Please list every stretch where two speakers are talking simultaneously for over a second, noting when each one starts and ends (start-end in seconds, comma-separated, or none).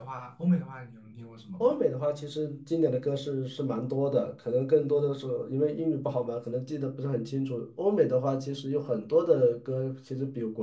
none